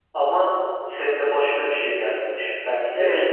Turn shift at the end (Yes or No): Yes